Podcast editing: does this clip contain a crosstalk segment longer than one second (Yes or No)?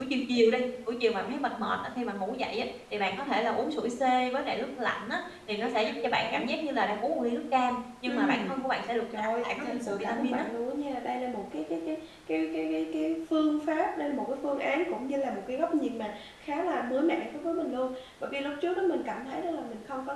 Yes